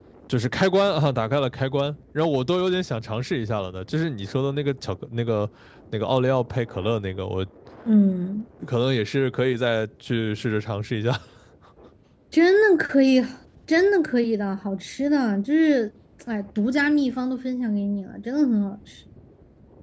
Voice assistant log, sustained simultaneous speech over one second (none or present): none